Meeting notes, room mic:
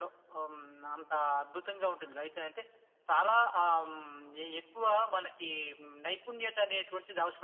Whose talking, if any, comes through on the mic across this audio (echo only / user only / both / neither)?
echo only